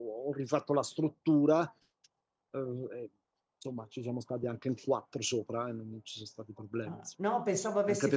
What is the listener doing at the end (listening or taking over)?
taking over